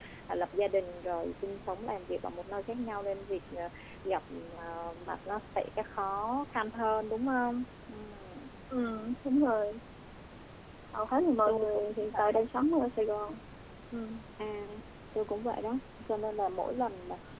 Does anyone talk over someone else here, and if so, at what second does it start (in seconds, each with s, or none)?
11.2 s